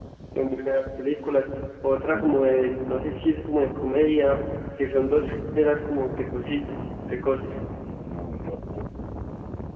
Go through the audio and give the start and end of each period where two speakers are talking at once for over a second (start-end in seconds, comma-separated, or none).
6.4-7.6